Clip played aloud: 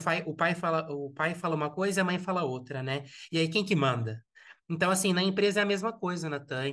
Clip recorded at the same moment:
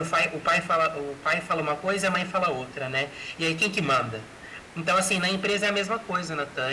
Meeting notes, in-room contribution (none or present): none